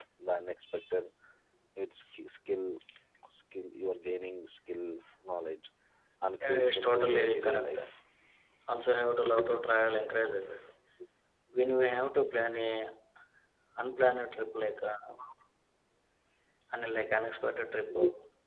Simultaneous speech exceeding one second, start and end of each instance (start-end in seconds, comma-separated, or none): 6.4-7.8